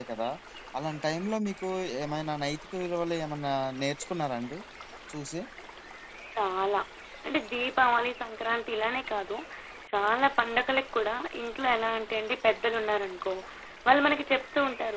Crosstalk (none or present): none